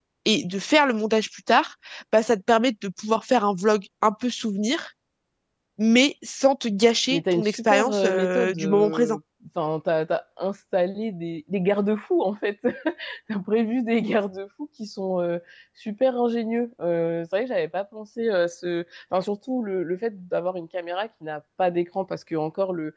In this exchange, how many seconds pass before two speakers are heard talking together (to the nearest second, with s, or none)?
7 s